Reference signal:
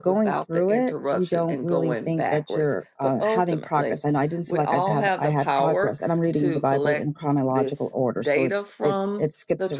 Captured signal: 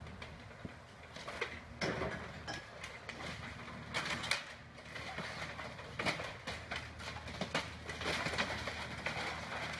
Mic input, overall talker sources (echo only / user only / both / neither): neither